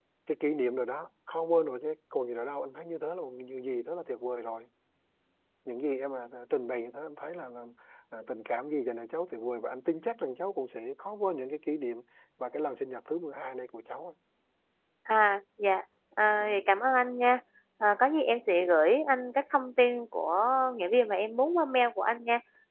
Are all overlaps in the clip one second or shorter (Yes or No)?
Yes